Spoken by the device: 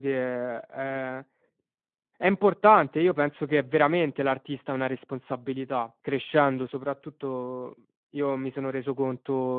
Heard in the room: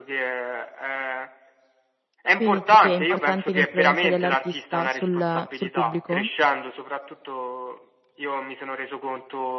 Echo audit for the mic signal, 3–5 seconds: both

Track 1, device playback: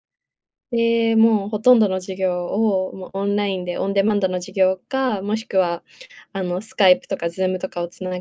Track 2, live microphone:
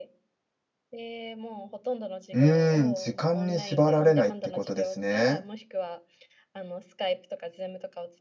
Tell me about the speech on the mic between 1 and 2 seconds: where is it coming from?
echo only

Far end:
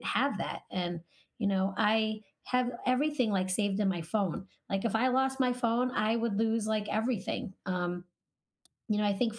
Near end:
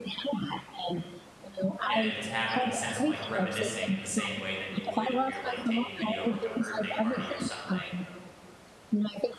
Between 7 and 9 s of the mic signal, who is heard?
both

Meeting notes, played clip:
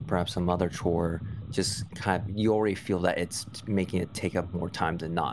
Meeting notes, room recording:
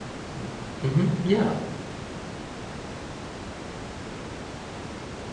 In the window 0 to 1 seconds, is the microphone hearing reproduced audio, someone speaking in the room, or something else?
user only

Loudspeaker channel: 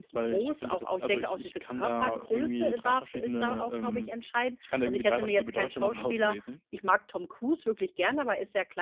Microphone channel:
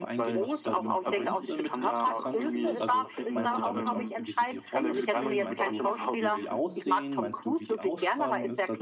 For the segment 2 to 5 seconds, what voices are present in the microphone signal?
both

